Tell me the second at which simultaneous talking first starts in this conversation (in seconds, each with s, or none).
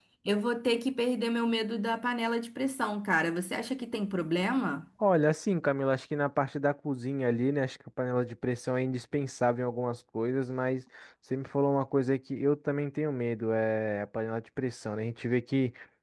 none